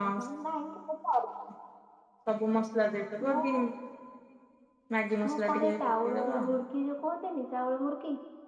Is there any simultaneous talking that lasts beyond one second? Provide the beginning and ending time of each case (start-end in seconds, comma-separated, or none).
5.3-6.5